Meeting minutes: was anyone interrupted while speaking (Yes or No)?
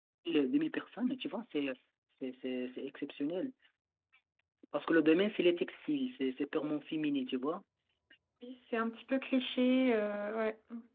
No